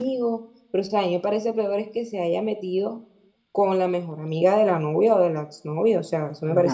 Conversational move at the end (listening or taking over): taking over